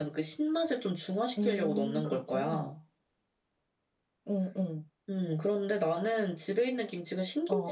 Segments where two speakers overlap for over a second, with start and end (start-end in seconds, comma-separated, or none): 1.4-2.7